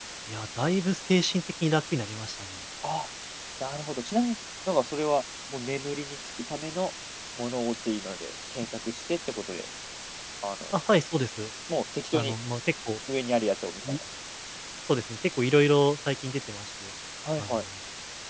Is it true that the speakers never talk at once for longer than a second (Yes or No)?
Yes